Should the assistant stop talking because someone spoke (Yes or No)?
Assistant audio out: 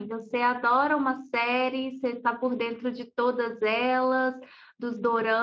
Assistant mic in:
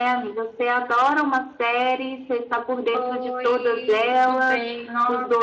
Yes